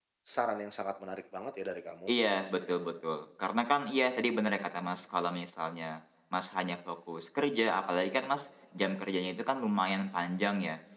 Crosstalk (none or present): none